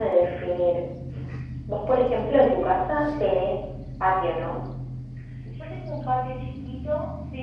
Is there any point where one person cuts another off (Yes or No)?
Yes